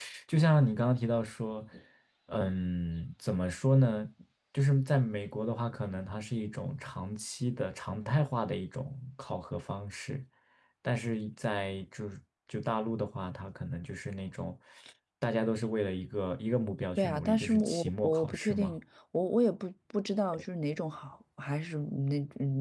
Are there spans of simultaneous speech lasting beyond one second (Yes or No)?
Yes